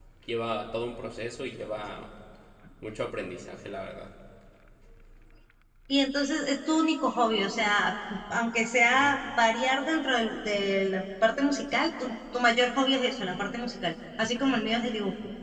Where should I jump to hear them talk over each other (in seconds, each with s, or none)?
none